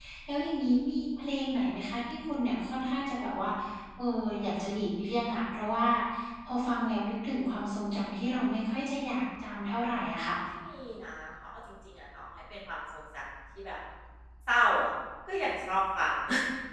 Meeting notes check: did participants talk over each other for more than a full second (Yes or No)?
No